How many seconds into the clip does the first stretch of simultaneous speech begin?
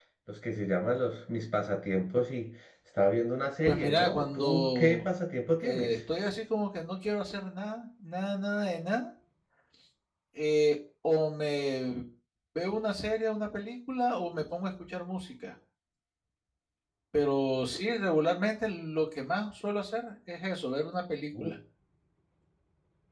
3.6 s

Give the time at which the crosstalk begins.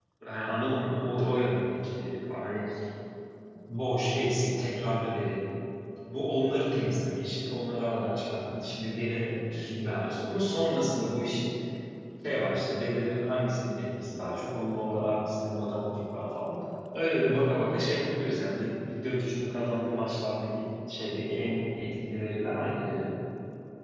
none

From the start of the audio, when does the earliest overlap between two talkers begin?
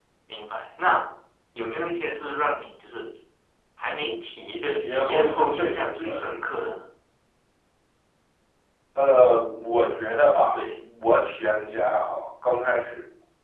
4.7 s

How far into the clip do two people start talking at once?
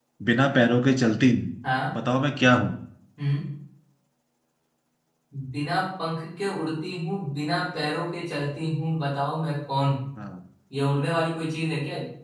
none

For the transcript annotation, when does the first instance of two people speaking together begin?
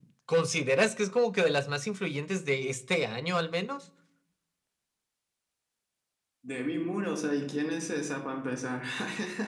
none

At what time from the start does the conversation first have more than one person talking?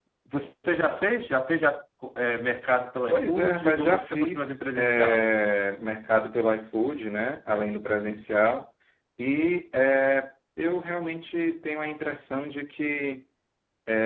3.1 s

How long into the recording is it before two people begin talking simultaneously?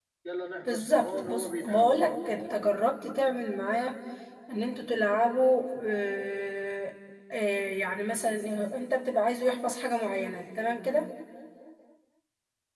0.7 s

